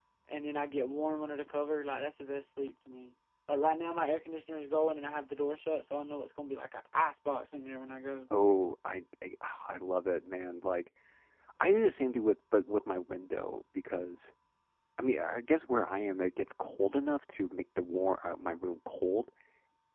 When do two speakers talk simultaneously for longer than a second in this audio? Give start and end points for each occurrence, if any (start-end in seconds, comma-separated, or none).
none